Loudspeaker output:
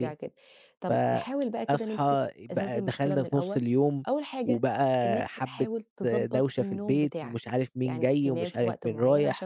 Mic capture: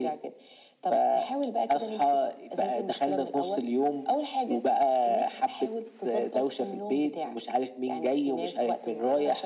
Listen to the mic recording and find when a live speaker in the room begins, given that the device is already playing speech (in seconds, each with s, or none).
none